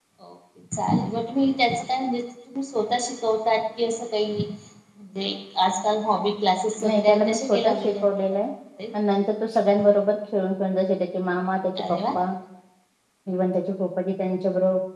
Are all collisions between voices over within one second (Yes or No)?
No